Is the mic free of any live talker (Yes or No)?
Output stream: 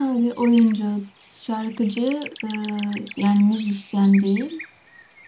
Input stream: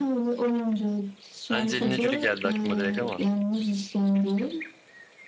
No